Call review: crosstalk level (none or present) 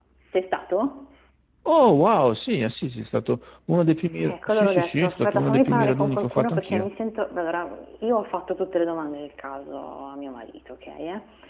present